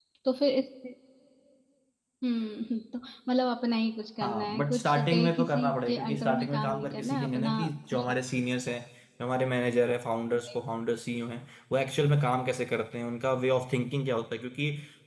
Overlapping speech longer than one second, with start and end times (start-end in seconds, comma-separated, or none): 4.2-7.5